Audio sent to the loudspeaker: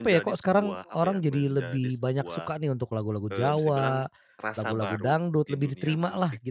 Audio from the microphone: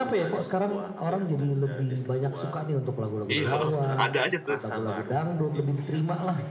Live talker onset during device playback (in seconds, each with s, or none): 3.3 s